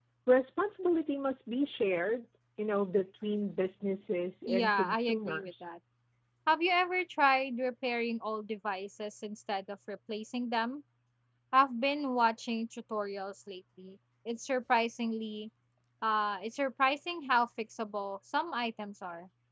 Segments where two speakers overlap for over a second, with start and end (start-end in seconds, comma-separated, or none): 4.5-5.7